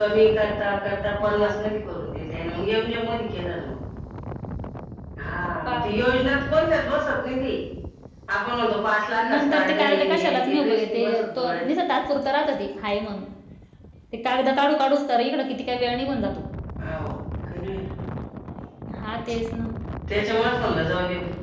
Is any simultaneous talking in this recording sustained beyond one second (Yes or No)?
Yes